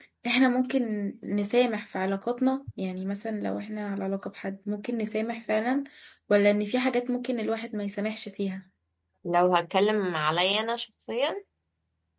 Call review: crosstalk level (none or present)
none